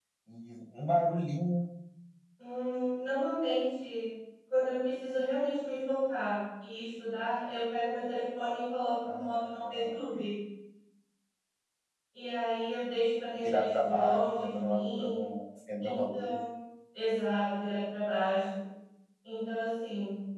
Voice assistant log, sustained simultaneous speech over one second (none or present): present